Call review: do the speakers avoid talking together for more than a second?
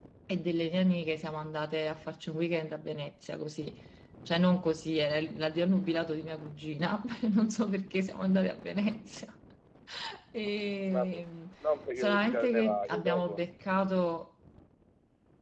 No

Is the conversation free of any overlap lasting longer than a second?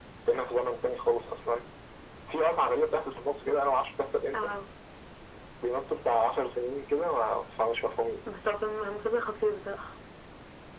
Yes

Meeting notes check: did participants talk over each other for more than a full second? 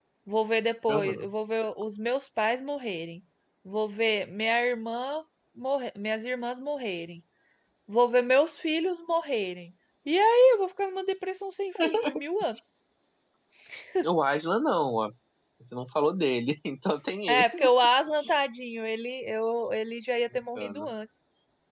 No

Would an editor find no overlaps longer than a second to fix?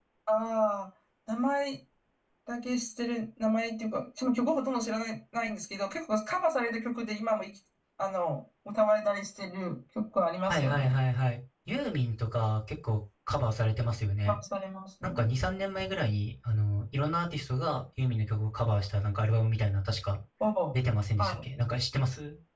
Yes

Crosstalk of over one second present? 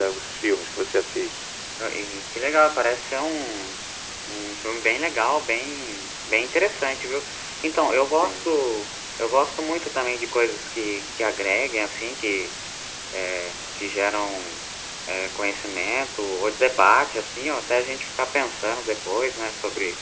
No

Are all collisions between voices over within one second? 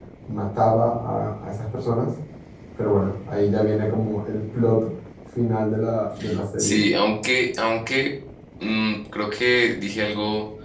Yes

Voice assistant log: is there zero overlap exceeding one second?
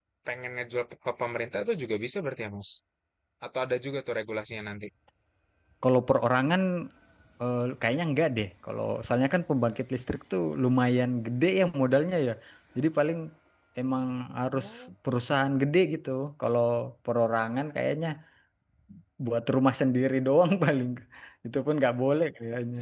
Yes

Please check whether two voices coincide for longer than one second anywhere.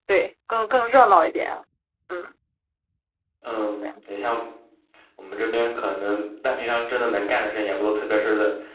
No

